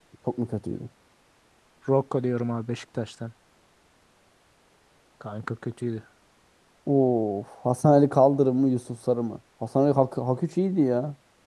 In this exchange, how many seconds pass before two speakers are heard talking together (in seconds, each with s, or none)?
none